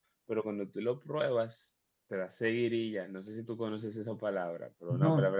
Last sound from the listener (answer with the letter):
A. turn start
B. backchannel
B